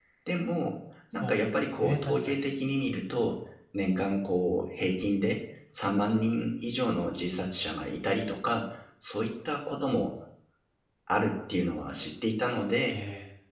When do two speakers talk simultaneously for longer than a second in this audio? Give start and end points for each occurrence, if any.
1.1-2.4

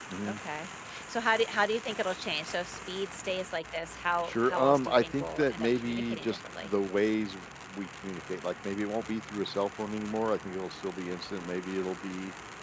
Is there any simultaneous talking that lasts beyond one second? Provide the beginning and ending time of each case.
4.2-6.7

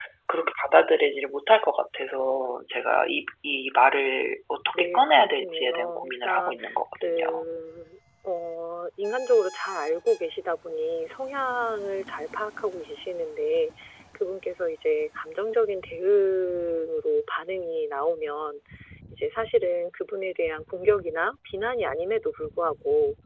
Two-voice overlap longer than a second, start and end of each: 4.8-6.5

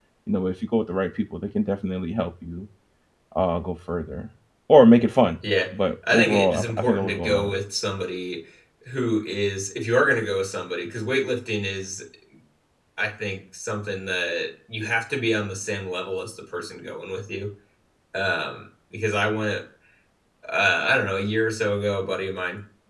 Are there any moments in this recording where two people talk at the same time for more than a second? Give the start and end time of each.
6.1-7.5

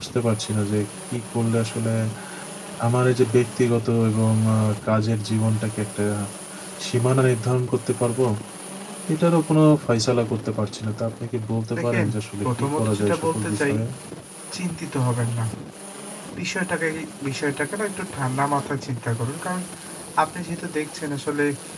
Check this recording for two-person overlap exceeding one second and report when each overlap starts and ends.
12.4-13.8

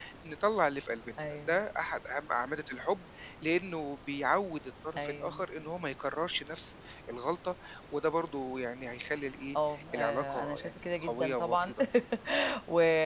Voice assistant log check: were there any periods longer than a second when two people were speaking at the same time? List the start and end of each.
9.9-11.7

